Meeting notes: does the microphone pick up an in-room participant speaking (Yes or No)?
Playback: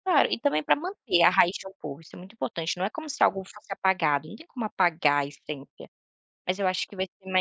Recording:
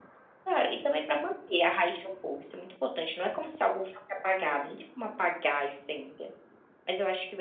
No